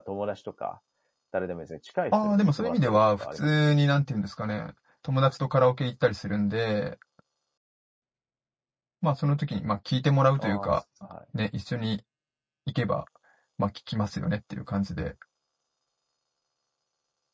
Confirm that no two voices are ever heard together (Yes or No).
No